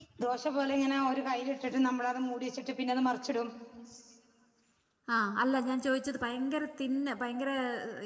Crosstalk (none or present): none